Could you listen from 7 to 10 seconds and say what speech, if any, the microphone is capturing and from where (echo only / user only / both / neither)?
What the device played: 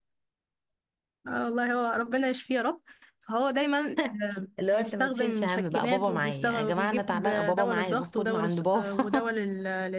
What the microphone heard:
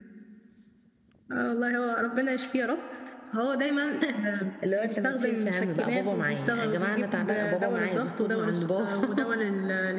echo only